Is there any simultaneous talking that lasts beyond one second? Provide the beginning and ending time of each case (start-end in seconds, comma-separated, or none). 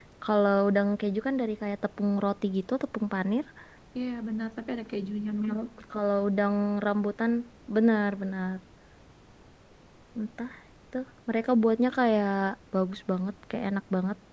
none